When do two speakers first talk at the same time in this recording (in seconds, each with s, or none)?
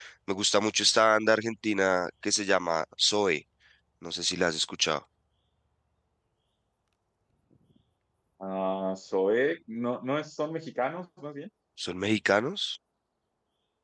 none